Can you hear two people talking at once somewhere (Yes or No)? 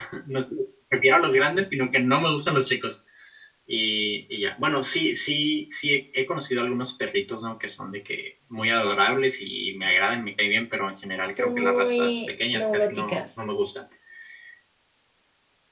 Yes